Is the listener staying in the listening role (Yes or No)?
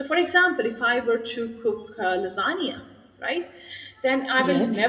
Yes